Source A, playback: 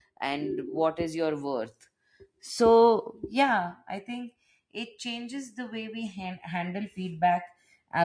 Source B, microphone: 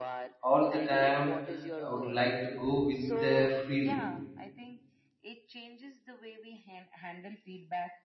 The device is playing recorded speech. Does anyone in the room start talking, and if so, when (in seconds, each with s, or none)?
0.4 s